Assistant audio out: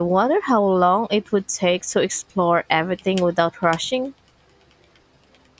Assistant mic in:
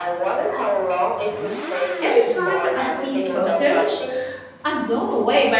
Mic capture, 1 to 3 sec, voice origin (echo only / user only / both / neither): both